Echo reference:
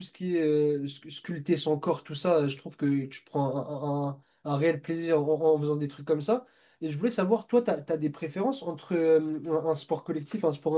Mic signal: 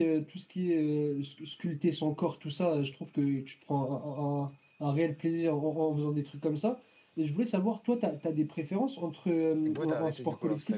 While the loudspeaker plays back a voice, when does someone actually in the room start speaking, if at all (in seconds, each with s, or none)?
9.6 s